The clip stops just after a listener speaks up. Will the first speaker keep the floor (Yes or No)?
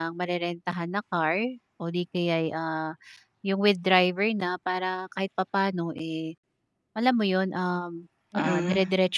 Yes